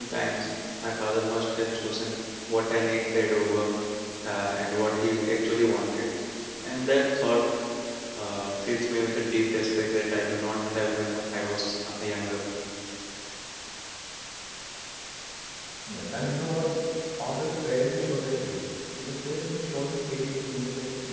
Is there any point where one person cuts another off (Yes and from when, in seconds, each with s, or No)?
No